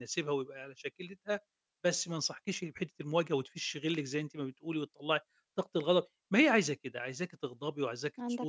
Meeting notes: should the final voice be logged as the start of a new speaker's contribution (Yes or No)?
No